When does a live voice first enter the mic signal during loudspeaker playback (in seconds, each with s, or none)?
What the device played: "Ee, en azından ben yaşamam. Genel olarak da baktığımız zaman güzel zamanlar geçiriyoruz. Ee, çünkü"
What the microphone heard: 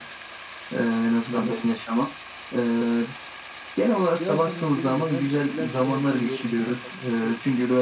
4.2 s